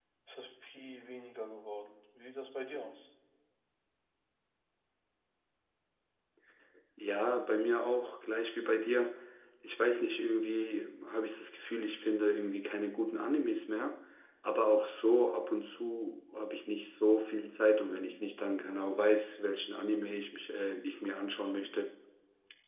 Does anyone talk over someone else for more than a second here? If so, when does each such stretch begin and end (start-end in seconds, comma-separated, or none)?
none